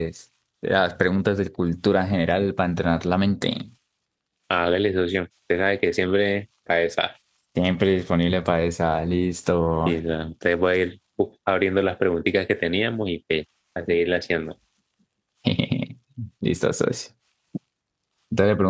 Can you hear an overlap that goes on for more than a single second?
No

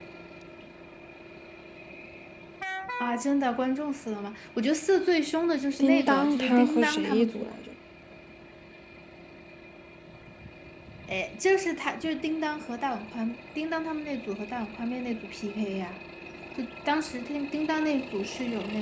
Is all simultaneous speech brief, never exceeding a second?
No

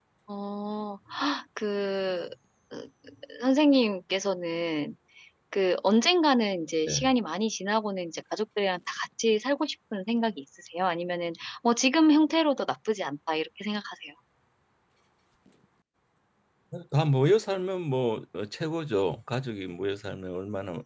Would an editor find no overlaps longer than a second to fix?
Yes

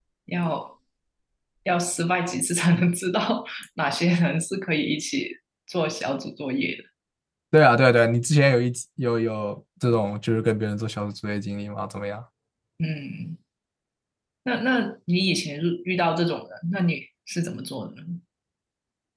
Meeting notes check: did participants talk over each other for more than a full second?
No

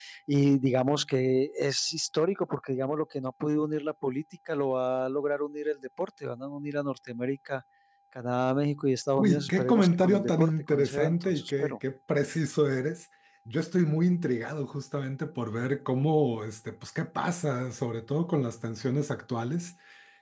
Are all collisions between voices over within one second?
No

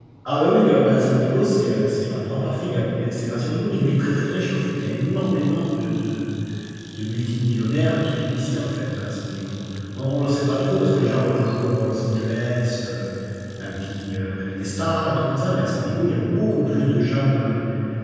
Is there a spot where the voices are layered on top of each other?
No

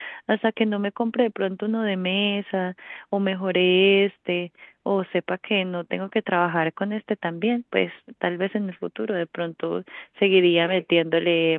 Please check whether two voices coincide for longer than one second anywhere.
No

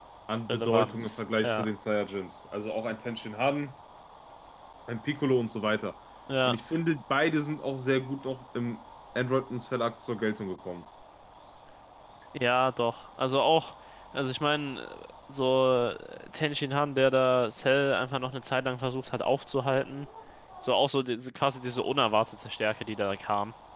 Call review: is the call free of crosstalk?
No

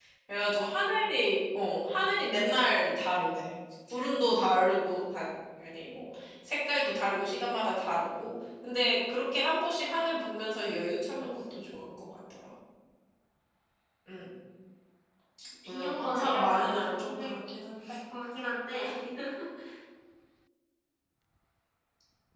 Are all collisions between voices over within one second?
No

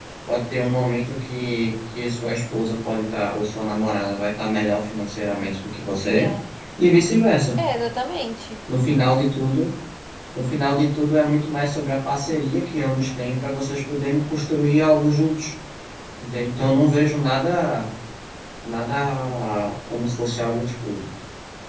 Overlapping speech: No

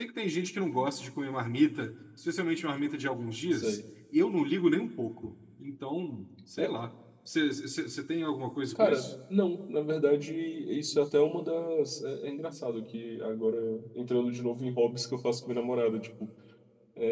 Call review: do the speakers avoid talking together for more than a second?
Yes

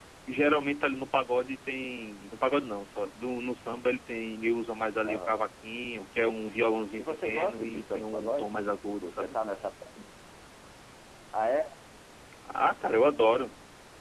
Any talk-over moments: Yes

